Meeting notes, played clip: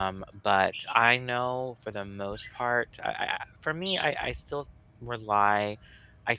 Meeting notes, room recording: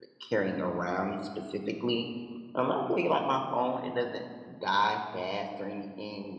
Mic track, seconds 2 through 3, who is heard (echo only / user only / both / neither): user only